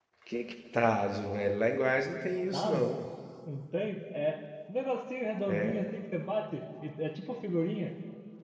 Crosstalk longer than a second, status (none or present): none